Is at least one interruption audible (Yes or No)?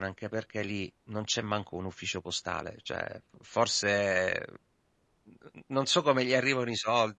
No